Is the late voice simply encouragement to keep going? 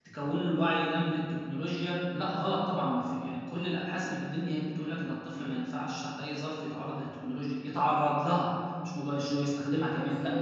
No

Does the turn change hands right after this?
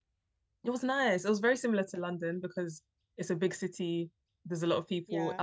No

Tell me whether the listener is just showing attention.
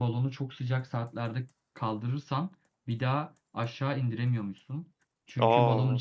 Yes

